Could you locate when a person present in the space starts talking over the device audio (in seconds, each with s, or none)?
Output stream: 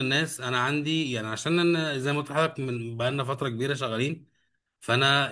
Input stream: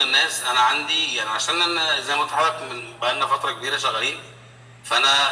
none